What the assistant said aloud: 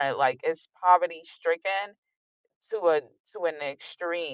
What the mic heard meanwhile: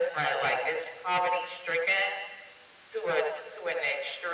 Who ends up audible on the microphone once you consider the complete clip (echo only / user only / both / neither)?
echo only